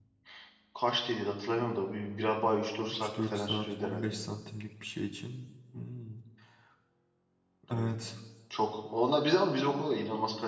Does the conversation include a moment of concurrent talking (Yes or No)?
Yes